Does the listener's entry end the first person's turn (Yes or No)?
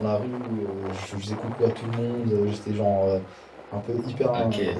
No